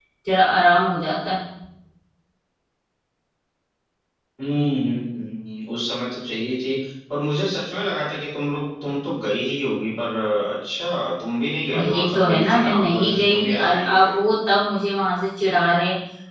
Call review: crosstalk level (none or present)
present